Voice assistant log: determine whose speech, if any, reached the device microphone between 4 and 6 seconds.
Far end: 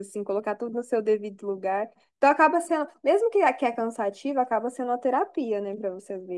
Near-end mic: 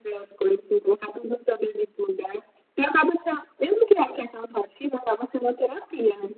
echo only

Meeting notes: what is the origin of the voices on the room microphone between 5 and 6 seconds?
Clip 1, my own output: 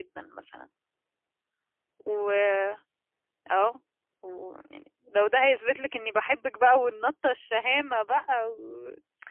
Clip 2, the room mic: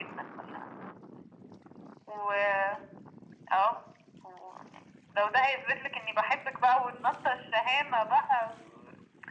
echo only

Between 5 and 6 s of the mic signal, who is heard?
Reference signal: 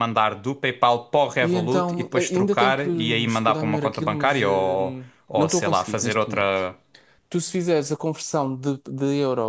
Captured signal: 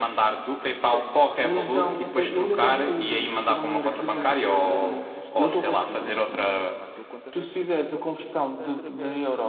both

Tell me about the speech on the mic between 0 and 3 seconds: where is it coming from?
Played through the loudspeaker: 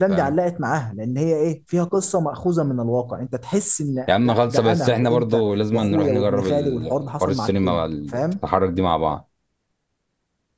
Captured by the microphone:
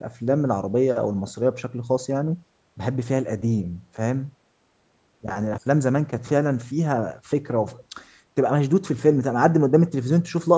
user only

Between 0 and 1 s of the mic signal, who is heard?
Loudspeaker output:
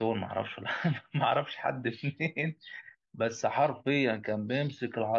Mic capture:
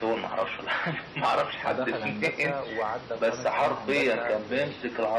echo only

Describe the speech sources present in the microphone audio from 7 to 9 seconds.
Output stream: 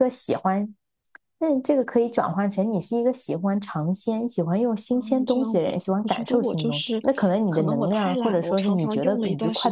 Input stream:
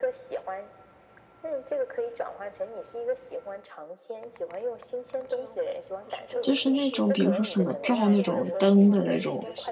both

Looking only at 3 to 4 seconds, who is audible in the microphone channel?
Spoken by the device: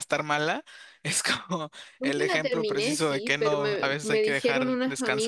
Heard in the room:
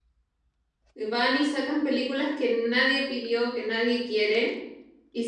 user only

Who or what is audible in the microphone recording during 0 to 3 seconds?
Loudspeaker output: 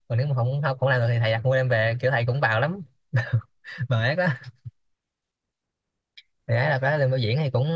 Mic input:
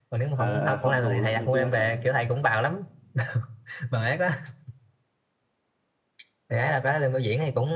both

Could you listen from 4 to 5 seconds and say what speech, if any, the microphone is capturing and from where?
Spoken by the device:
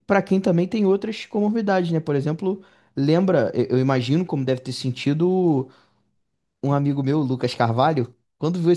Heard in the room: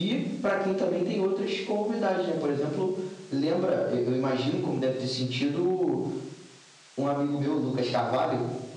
echo only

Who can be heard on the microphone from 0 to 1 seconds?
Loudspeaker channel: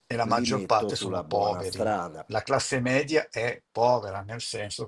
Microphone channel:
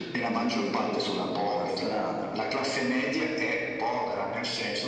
echo only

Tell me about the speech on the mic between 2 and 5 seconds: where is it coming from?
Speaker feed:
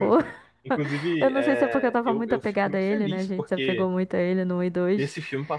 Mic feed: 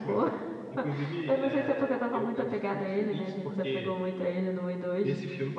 echo only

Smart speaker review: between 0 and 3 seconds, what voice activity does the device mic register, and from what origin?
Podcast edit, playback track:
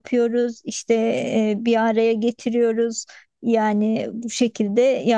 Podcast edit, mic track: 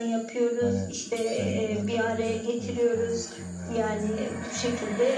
both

